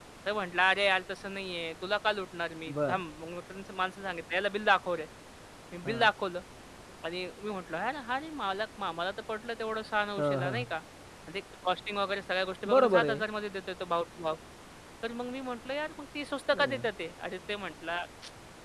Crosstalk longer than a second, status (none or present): none